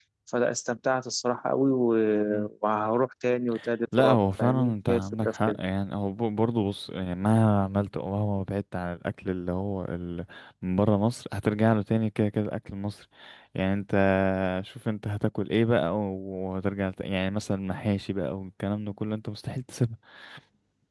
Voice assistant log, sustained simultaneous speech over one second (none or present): present